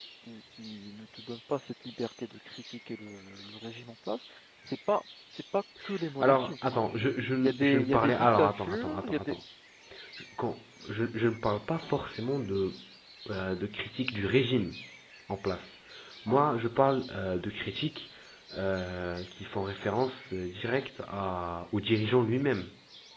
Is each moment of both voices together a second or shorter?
No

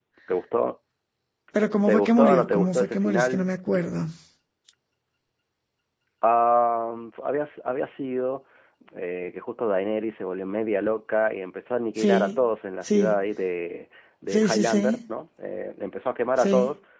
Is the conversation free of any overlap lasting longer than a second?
No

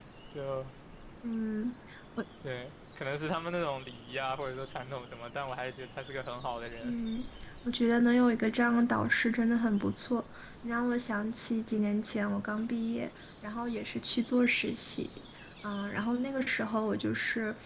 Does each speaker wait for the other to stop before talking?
Yes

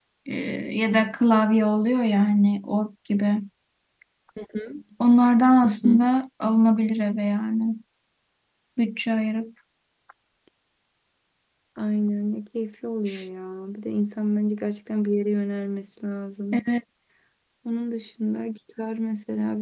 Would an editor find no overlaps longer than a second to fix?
Yes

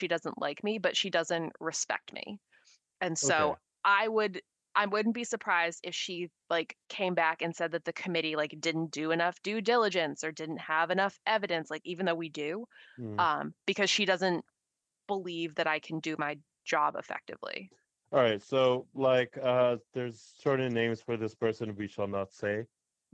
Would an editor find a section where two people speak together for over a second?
No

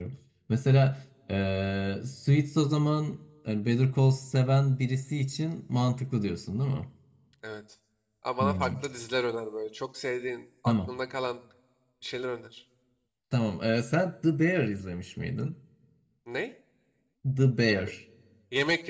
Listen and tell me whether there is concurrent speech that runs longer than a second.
No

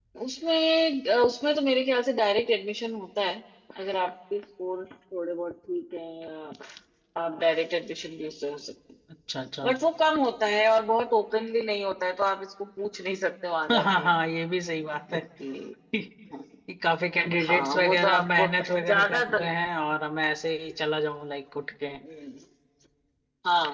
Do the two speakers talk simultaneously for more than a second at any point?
Yes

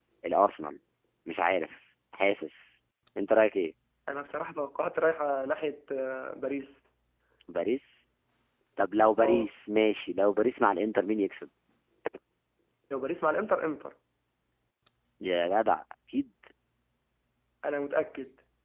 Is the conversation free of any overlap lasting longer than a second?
Yes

